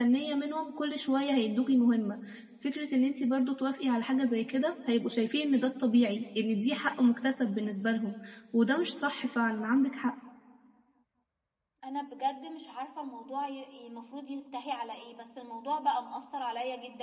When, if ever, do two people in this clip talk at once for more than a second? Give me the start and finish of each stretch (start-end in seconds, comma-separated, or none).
none